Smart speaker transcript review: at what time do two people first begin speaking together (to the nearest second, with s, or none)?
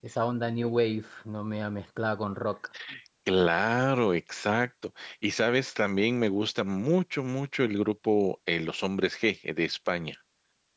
none